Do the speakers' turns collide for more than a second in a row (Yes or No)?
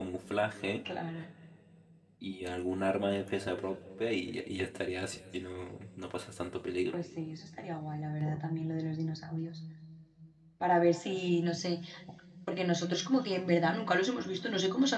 No